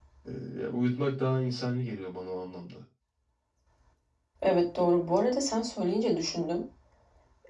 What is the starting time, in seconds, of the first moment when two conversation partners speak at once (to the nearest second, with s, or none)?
none